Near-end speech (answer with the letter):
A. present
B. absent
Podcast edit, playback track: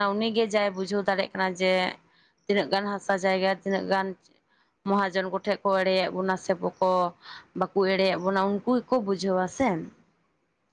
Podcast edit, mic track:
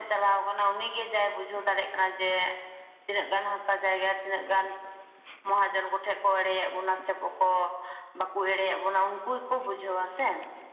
B